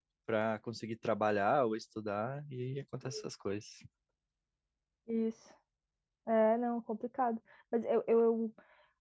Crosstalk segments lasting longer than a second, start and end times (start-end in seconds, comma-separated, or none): none